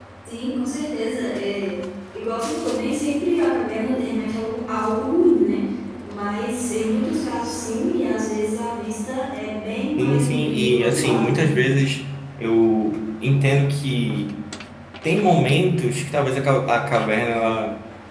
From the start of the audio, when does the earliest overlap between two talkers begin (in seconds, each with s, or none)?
10.0 s